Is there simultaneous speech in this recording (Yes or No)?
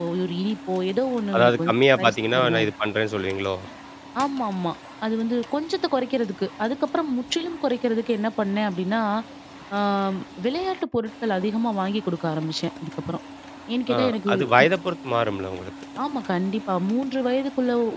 Yes